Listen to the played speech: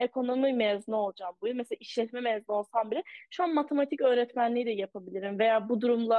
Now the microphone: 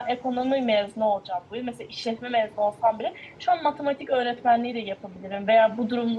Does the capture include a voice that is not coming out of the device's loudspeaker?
No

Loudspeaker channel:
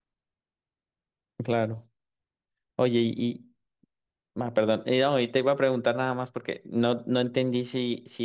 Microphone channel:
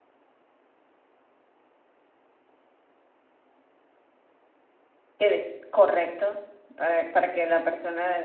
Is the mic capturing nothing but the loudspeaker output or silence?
No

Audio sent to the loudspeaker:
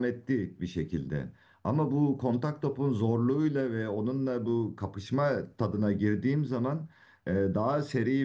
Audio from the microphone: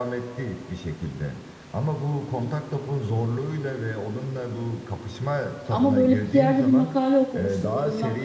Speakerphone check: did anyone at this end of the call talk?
Yes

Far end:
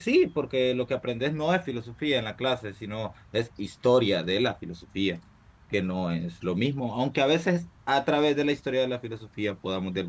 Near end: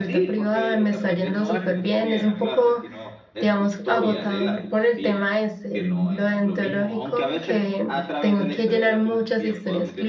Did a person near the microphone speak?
Yes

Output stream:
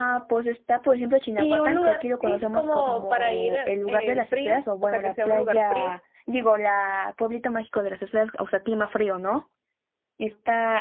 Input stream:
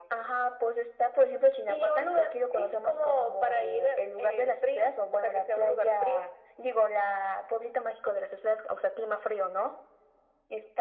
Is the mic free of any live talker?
Yes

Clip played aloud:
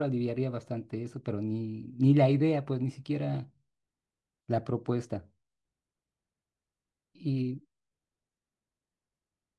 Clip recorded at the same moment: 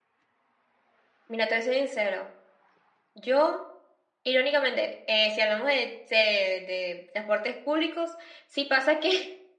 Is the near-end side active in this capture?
Yes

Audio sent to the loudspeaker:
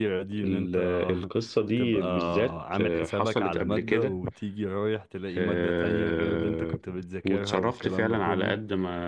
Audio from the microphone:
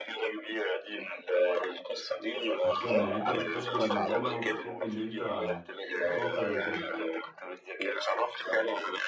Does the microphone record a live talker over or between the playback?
Yes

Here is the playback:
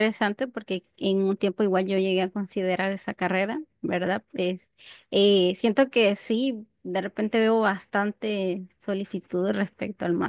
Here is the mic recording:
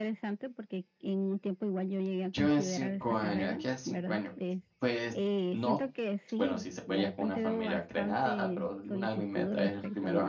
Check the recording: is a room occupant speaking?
Yes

